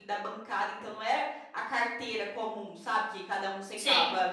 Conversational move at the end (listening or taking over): listening